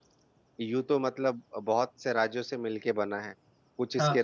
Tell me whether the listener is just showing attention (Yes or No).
Yes